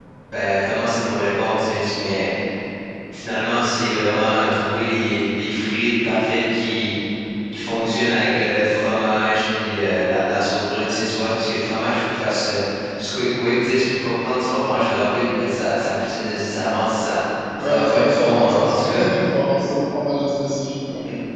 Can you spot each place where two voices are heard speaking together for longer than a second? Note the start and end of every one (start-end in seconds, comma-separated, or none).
17.6-18.8